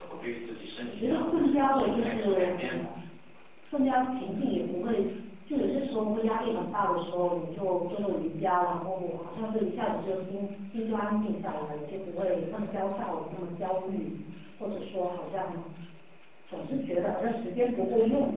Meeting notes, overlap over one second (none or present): present